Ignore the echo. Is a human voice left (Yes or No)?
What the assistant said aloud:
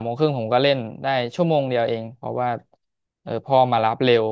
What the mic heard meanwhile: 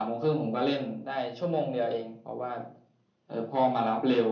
No